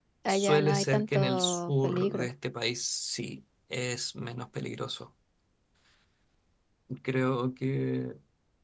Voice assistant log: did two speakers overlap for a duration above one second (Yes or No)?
Yes